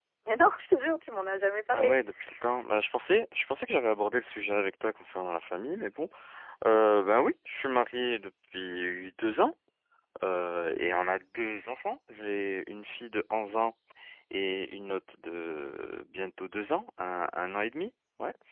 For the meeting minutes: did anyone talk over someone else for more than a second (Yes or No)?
No